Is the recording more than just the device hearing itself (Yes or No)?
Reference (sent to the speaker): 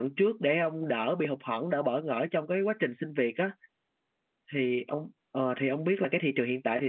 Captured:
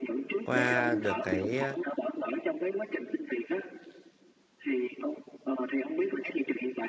Yes